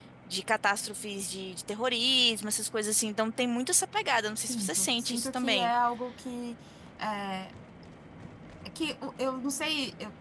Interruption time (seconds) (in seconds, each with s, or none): 4.4 s